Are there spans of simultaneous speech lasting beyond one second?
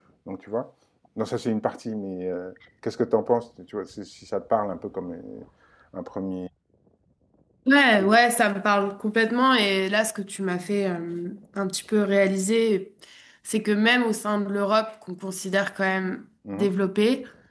No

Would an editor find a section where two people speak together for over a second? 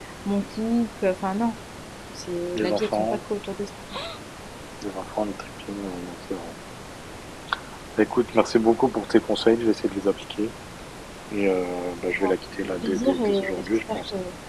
Yes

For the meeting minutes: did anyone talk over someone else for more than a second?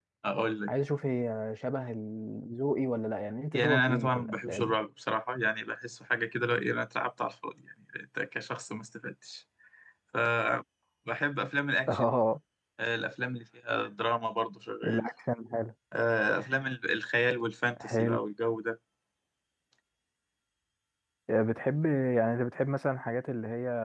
Yes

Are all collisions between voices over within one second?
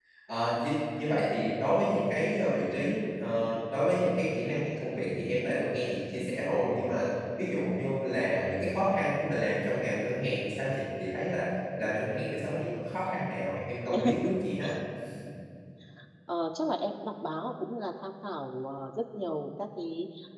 Yes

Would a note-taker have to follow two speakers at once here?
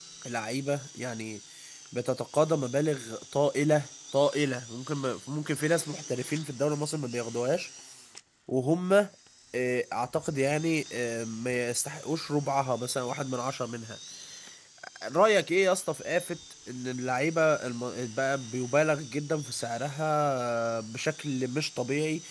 No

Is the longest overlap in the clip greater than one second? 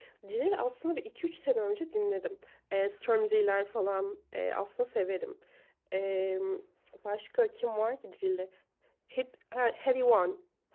No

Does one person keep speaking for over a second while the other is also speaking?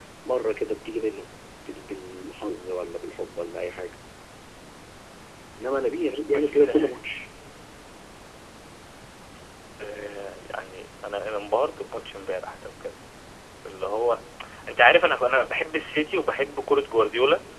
No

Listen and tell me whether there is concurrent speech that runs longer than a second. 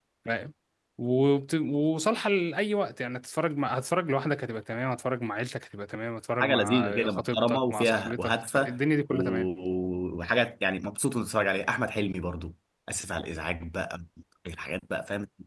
Yes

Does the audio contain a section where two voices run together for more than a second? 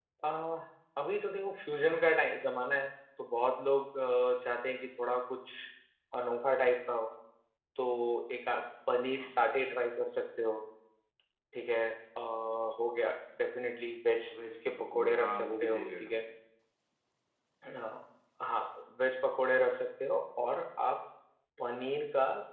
Yes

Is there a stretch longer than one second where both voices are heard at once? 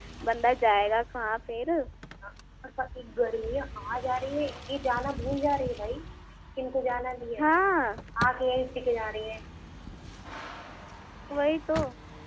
No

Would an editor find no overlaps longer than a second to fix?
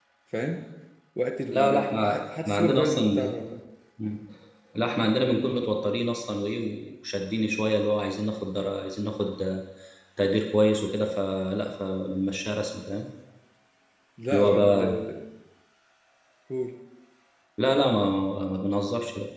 No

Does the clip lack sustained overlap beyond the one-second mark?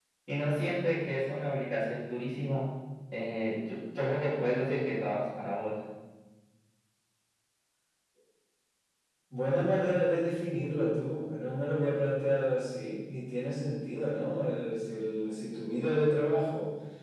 Yes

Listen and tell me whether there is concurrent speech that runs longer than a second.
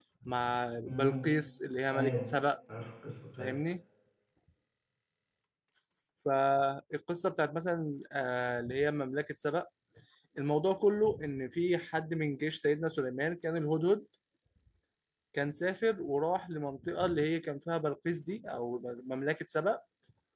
No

